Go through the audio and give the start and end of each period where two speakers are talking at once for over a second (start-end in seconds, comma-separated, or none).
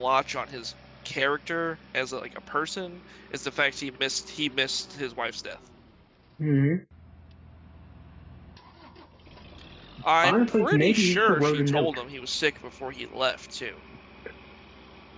10.2-12.0